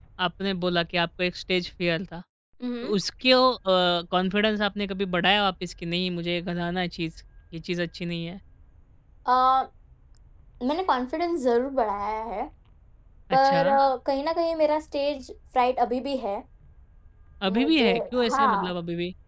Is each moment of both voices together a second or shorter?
No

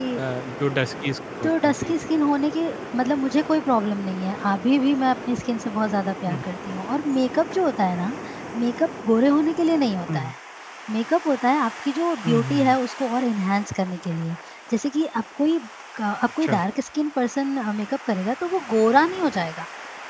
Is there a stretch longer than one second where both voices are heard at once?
No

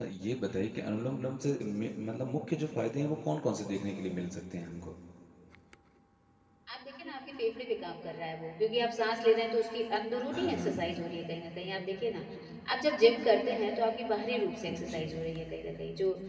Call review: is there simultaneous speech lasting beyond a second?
No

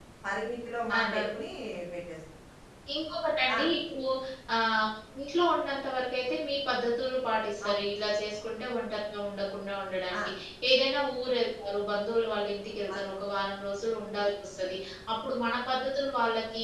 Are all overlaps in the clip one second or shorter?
Yes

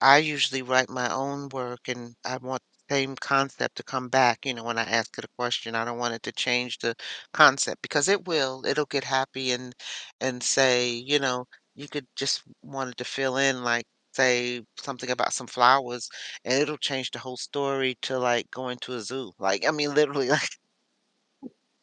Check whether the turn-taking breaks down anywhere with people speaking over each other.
No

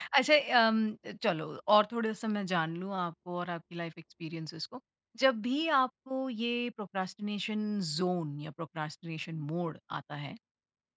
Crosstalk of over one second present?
No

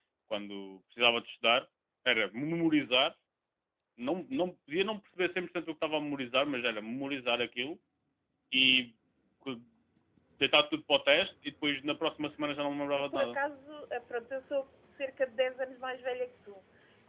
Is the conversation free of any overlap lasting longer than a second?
Yes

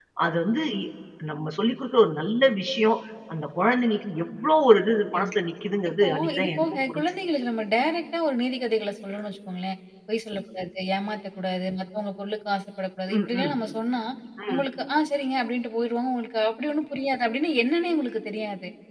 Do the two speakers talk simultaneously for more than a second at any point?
Yes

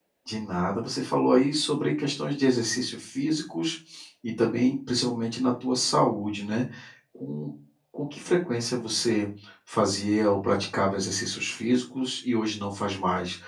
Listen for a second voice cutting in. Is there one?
No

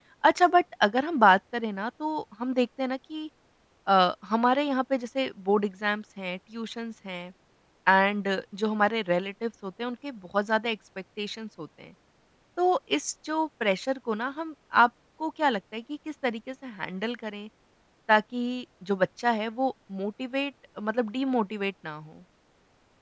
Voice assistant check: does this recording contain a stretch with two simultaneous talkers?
No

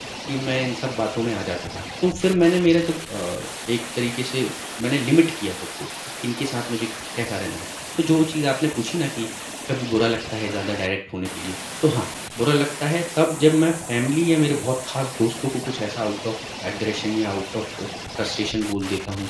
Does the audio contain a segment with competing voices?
No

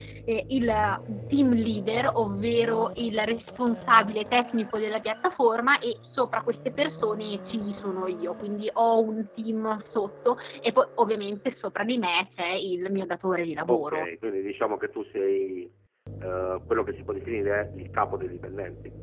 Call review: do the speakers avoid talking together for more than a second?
Yes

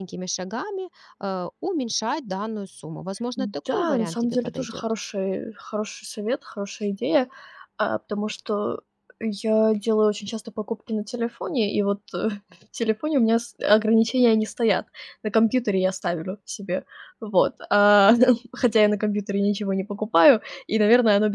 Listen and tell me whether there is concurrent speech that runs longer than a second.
Yes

